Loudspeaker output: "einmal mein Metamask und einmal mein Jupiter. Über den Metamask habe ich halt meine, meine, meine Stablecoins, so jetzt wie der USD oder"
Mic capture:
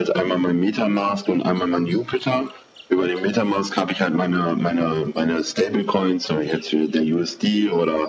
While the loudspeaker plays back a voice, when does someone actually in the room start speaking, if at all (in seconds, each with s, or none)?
none